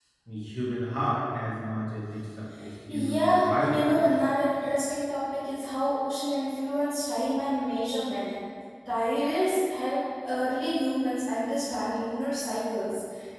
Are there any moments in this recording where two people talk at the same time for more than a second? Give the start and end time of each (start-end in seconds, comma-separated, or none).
2.9-4.2